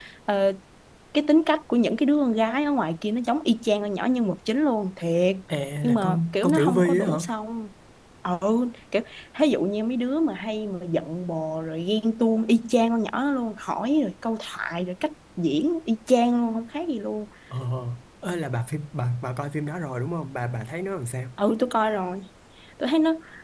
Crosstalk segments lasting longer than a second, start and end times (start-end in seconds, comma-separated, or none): 5.8-7.2